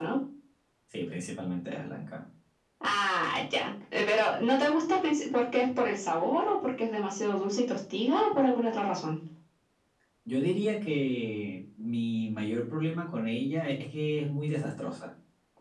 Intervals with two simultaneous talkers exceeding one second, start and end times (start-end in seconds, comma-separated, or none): none